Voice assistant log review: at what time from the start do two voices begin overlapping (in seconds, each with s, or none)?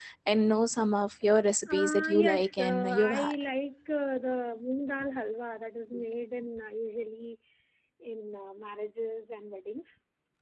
1.6 s